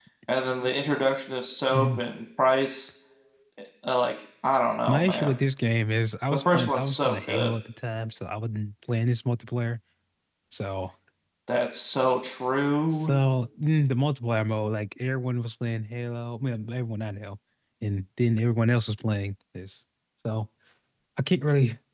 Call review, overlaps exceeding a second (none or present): present